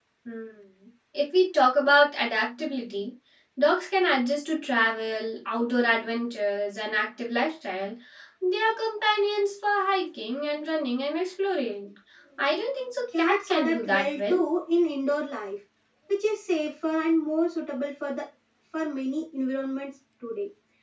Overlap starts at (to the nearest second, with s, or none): 13 s